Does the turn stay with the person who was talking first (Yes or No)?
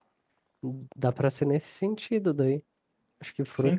No